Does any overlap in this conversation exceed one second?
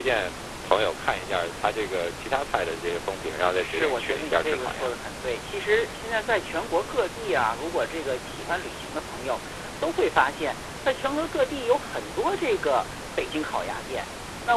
Yes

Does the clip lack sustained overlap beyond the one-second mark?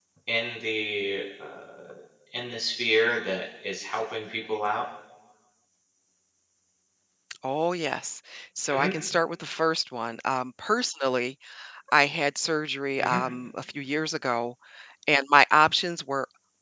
Yes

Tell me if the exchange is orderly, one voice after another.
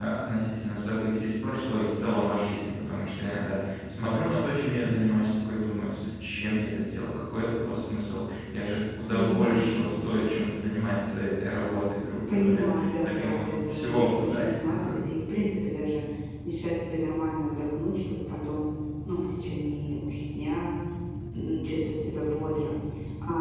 No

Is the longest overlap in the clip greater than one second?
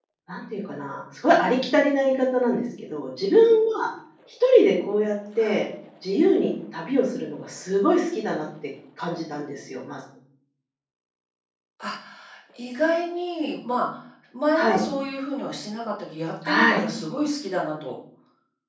No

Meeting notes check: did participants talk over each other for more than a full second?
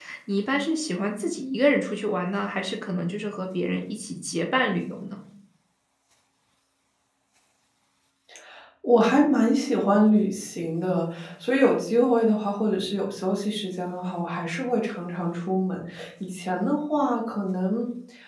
No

